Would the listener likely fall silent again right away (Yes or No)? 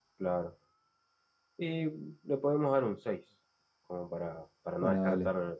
No